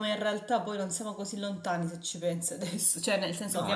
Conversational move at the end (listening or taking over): taking over